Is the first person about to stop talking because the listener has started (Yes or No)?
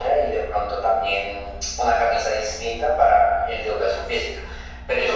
Yes